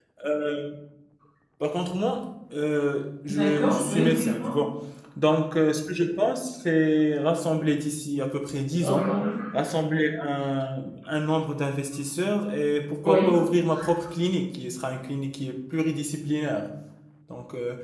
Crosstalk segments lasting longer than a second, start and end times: 3.3-4.5

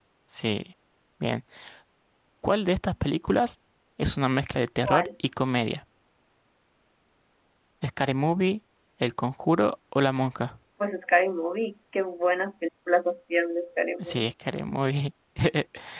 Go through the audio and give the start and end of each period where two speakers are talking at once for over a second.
none

